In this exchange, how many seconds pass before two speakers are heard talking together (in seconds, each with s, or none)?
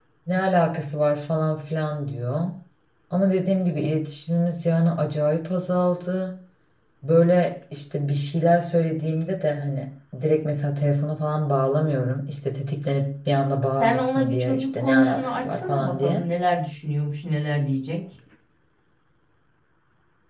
13.8 s